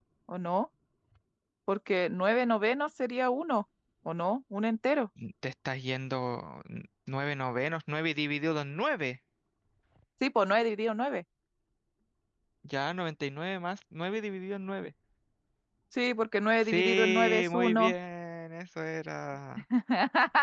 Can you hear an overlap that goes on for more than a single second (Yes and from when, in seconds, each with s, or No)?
Yes, from 16.6 s